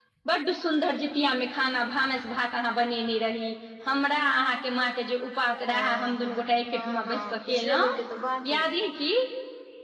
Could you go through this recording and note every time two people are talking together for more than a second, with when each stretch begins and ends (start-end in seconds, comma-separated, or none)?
5.7-7.8